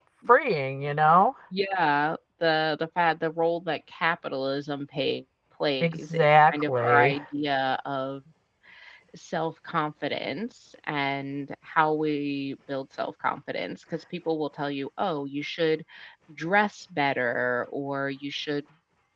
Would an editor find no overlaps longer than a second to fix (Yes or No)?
No